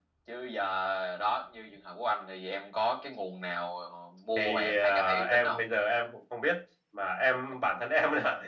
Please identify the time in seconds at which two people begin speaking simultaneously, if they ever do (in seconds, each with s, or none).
4.4 s